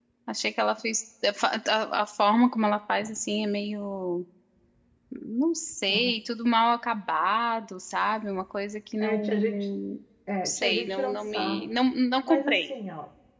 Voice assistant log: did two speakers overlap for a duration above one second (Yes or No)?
Yes